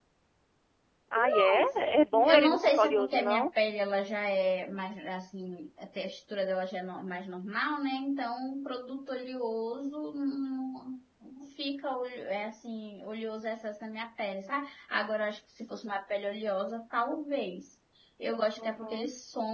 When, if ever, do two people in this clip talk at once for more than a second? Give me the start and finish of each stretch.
2.2-3.5

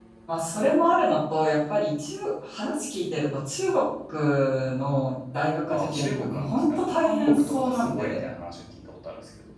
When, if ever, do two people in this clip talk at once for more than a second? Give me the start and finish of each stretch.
5.7-8.3

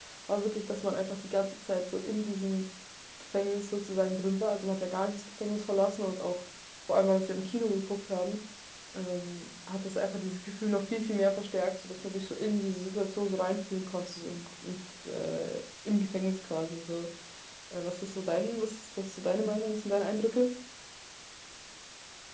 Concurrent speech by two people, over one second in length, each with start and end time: none

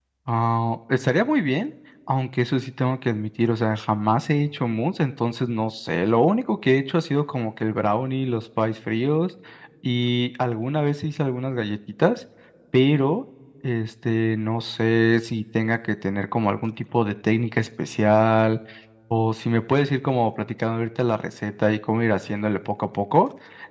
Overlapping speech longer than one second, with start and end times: none

